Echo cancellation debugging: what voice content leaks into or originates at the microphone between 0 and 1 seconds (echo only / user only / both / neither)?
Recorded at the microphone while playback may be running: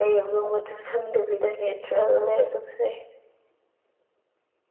echo only